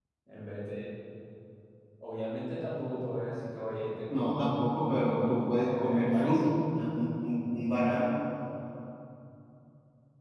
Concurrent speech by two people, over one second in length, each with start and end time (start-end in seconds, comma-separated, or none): 4.1-6.4